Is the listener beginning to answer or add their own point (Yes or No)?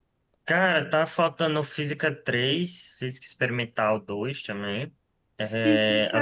Yes